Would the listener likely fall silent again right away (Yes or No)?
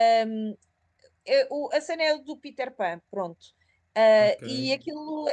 Yes